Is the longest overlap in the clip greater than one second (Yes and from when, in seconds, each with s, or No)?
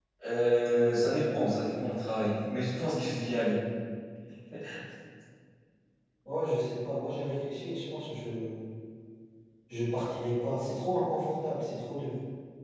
No